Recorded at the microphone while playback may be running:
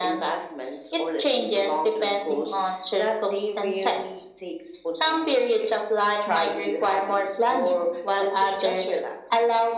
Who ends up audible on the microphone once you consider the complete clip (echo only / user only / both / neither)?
echo only